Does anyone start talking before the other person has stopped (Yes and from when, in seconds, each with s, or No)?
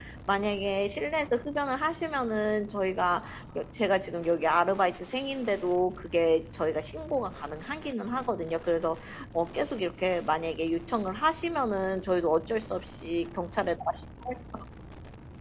No